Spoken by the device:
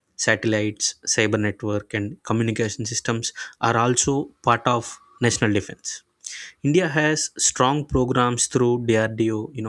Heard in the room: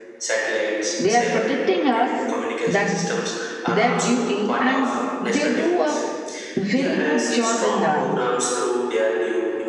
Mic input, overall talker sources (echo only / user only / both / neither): both